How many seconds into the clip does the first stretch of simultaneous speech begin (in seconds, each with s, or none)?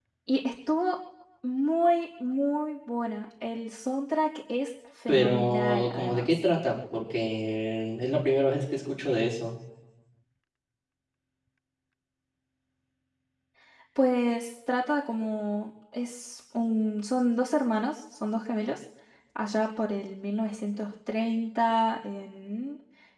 5.1 s